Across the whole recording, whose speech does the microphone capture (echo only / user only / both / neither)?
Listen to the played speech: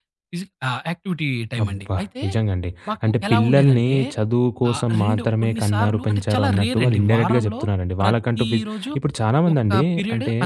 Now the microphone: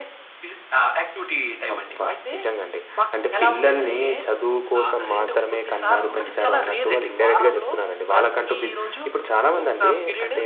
echo only